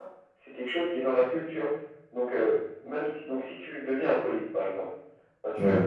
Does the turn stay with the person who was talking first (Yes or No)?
Yes